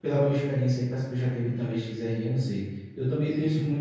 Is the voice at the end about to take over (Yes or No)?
No